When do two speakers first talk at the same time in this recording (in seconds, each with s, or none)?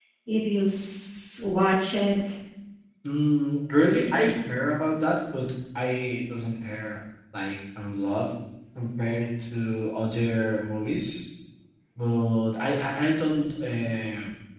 none